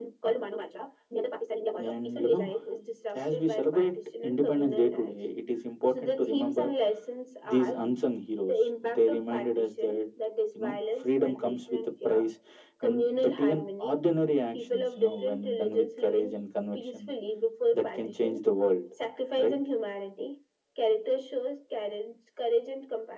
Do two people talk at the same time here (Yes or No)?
Yes